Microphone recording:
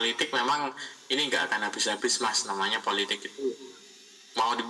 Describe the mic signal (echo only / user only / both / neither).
echo only